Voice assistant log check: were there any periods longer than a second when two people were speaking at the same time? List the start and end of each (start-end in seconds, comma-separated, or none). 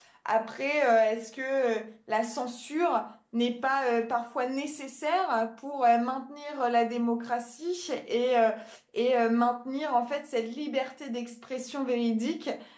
none